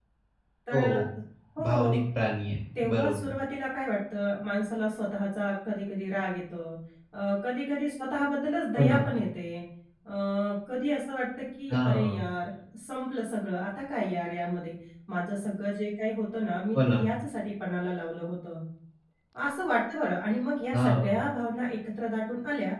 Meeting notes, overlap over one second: none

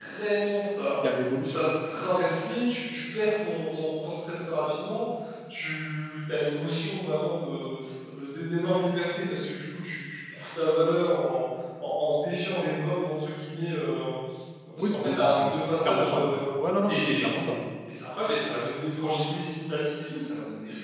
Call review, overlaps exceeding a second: present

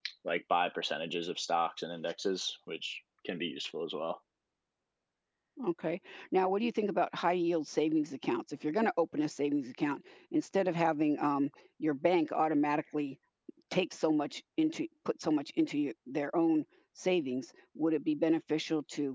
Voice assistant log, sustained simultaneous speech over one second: none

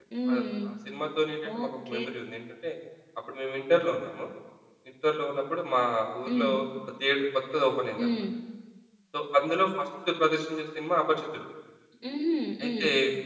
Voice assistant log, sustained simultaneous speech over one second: none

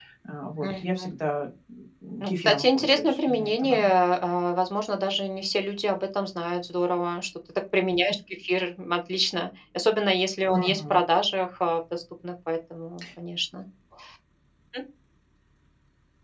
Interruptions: present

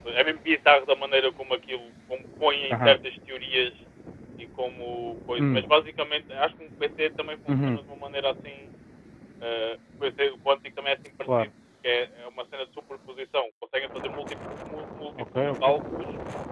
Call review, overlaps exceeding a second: none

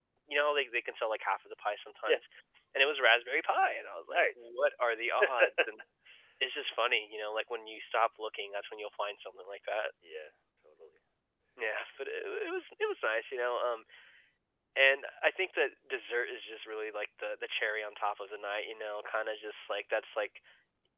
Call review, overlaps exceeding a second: none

